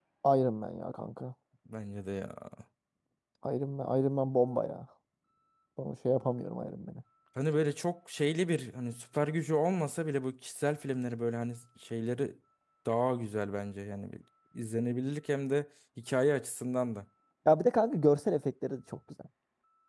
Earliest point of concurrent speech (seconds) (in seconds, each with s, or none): none